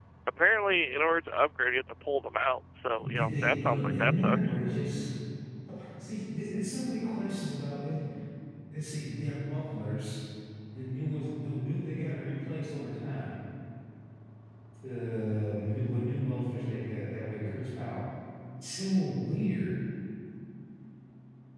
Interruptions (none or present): present